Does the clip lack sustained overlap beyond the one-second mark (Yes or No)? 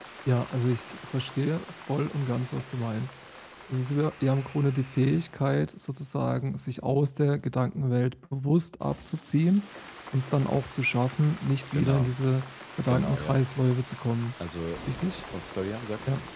Yes